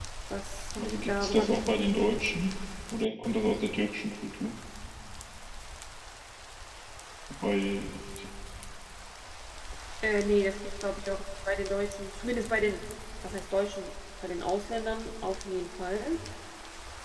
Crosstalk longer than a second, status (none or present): present